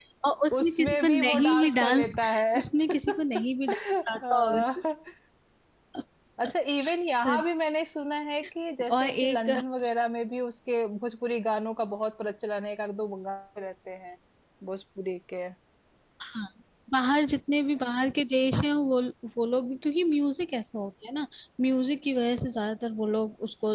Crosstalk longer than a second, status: present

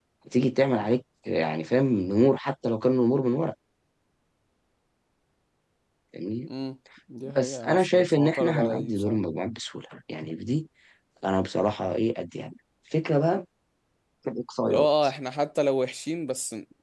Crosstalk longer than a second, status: present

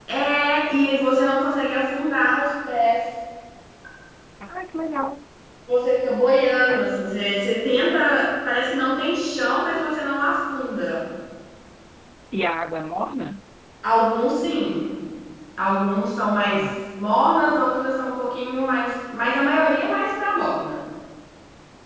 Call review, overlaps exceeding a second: none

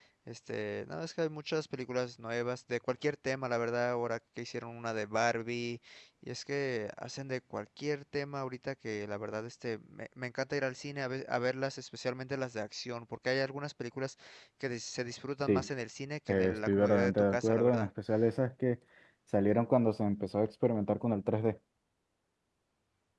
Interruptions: present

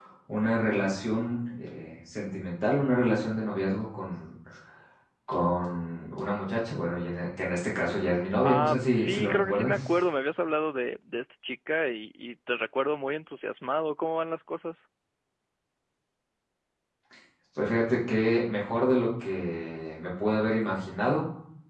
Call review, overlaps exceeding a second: present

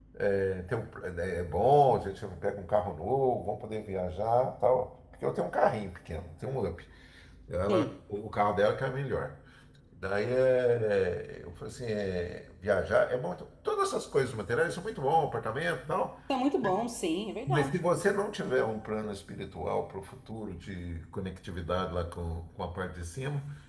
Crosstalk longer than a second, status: none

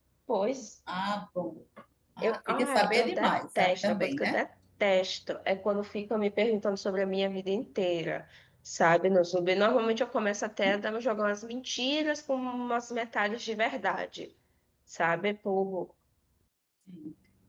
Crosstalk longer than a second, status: present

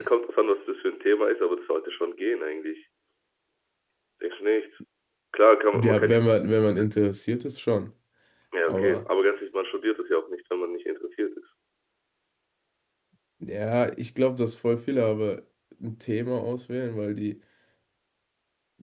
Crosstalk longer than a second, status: none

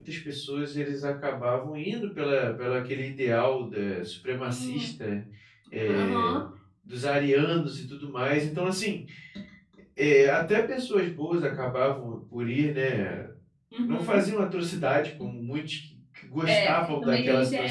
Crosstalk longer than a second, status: present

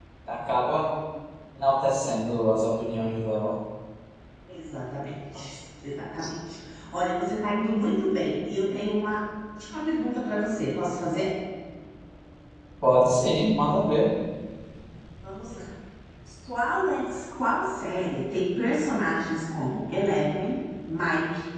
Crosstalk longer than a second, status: none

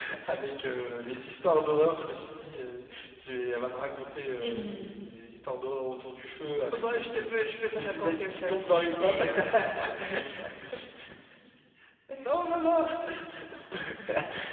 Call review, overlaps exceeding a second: present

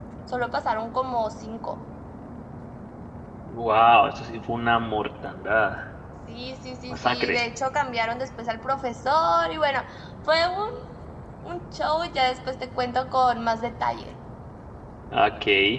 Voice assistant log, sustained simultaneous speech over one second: none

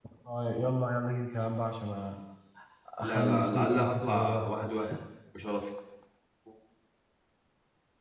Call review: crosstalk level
present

